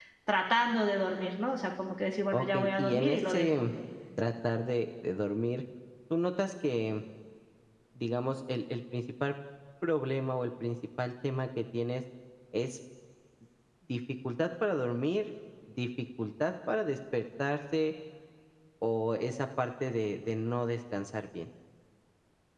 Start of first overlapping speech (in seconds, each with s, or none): 2.3 s